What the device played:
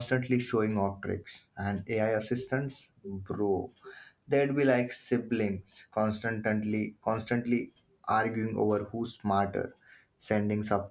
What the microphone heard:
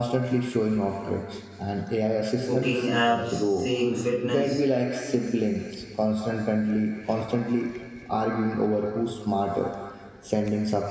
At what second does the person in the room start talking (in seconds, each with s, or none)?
2.4 s